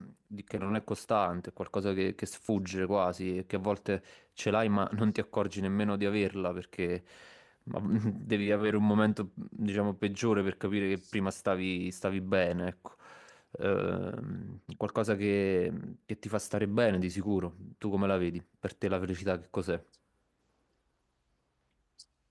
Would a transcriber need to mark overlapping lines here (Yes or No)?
No